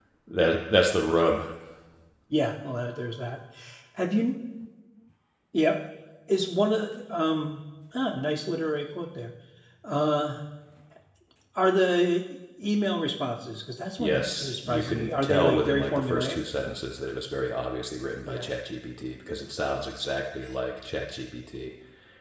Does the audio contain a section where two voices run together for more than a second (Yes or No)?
Yes